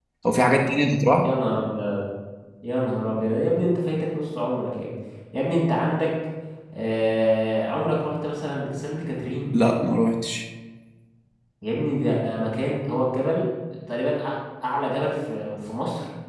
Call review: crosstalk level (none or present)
none